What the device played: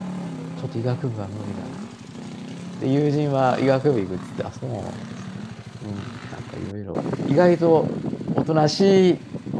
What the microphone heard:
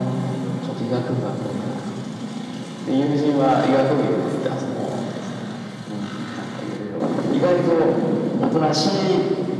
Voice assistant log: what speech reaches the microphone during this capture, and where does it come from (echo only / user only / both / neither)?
echo only